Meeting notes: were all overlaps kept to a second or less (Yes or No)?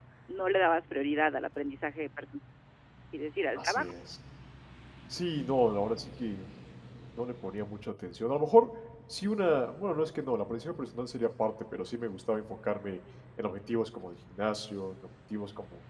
Yes